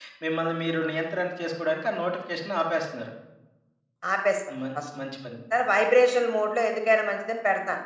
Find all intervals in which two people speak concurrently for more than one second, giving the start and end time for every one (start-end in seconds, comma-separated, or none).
none